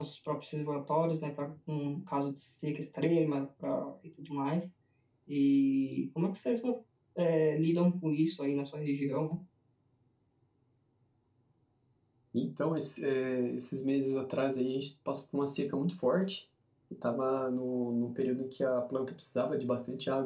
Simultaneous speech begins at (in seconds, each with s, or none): none